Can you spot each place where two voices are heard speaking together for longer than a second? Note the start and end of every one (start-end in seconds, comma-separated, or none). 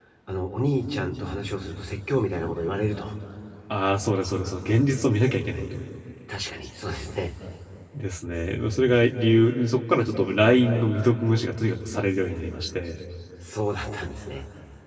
none